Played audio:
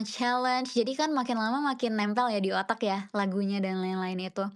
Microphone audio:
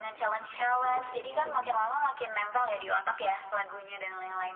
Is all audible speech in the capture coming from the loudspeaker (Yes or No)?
No